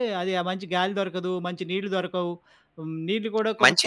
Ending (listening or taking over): taking over